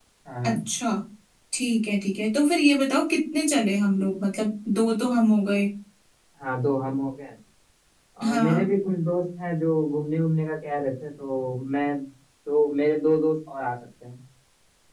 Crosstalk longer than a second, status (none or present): none